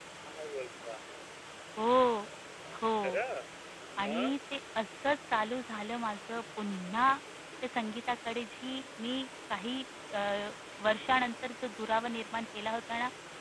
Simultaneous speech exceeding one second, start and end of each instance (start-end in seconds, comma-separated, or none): none